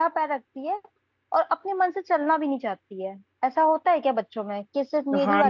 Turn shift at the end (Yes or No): Yes